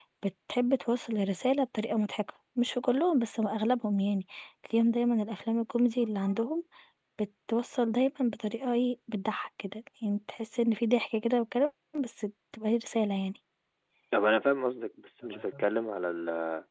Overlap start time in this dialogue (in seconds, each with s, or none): none